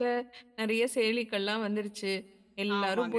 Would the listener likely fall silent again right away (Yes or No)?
Yes